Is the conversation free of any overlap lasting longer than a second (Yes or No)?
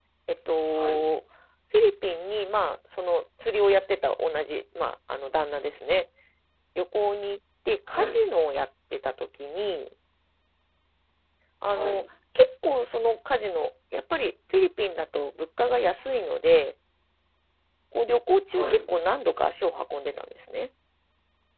Yes